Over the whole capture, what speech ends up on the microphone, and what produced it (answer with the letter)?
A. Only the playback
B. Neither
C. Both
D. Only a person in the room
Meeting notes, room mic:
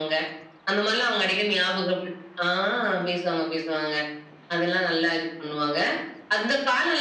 A